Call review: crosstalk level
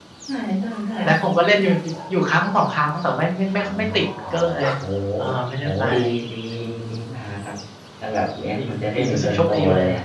present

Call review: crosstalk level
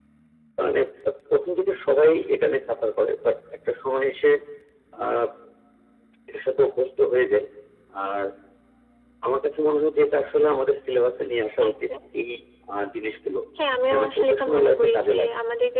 present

